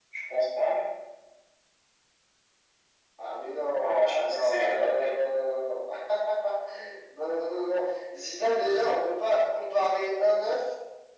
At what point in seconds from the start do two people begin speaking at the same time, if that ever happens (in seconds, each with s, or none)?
3.8 s